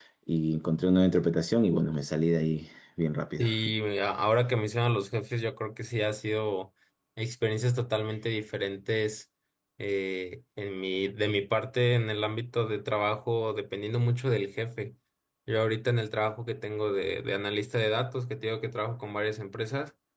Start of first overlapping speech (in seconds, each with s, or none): none